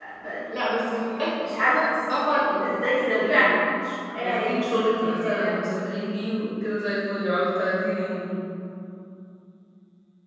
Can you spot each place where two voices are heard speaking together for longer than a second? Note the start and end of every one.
4.2-5.6

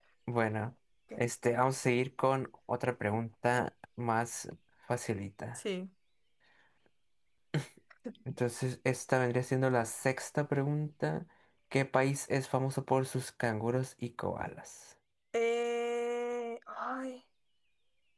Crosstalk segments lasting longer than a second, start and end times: none

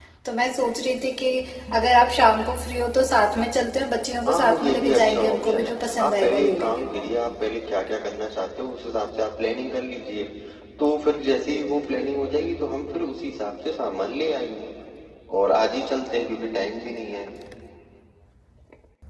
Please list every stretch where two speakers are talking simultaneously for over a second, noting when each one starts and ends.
4.3-7.1

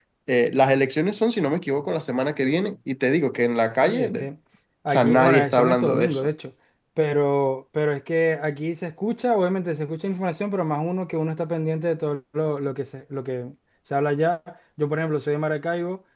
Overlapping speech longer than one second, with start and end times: 4.9-6.3

